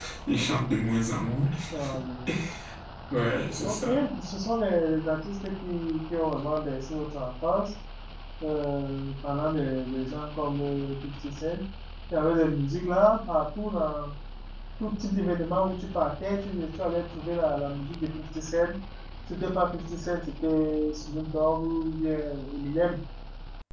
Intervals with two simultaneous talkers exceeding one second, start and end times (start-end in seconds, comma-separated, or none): none